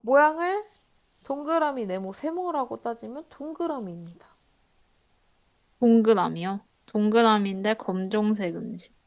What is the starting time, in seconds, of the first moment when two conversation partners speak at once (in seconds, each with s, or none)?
none